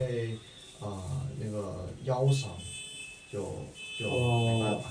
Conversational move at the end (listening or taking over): listening